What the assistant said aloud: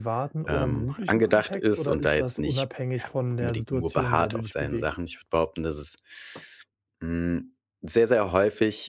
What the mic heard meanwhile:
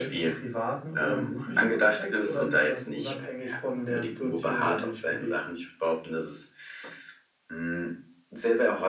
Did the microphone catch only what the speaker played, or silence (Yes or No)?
Yes